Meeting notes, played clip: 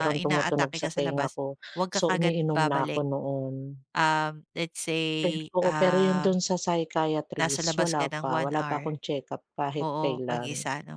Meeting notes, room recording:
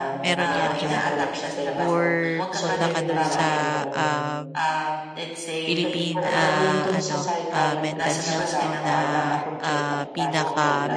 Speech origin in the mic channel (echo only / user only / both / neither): both